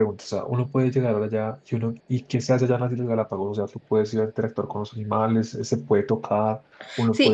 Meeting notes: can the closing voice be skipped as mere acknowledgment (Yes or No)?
No